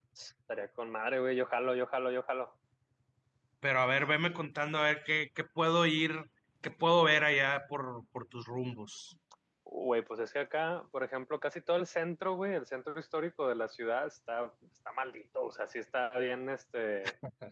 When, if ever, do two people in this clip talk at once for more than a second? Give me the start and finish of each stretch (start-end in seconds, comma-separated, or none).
none